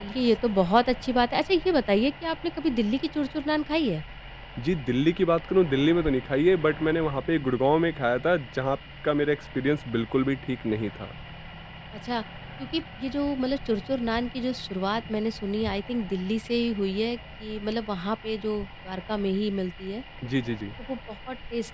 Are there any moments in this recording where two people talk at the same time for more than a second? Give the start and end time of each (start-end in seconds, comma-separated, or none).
none